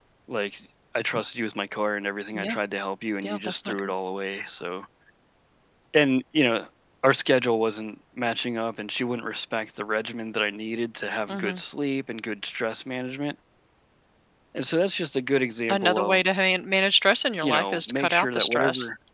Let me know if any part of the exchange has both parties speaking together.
Yes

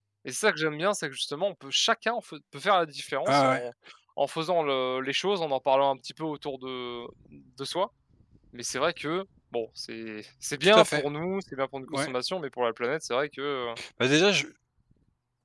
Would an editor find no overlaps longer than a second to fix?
Yes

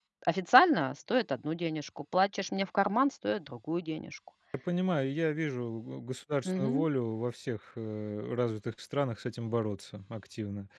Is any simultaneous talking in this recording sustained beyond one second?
No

